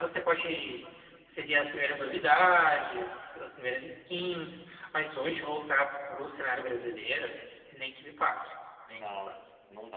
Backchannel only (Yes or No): No